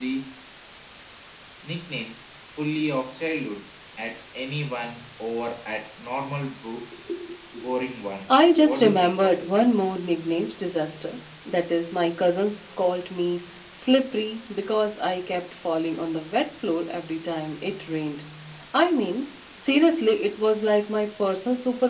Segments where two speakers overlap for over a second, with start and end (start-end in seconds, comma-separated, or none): 8.3-9.6